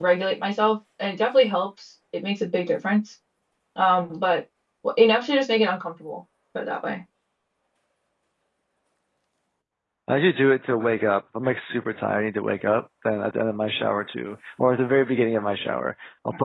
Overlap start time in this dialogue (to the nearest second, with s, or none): none